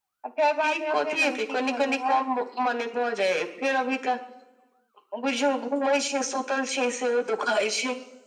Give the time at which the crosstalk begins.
0.6 s

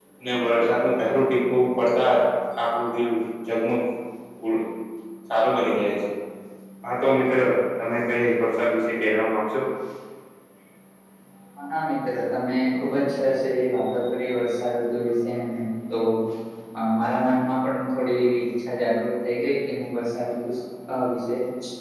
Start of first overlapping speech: none

